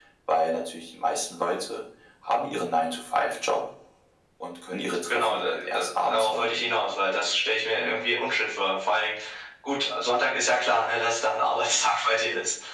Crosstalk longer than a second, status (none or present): present